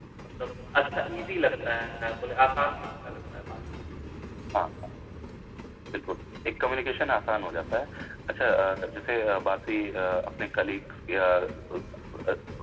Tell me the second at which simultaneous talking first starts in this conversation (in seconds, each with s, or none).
none